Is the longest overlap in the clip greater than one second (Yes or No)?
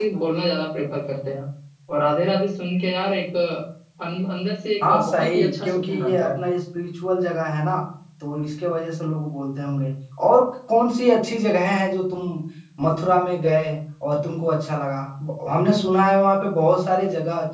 Yes